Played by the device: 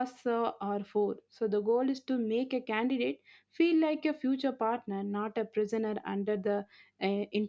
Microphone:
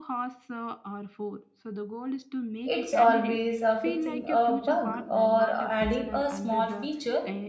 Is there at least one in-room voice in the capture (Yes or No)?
Yes